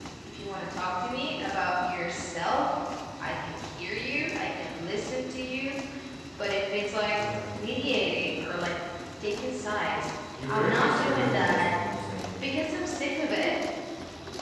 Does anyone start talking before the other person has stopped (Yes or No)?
Yes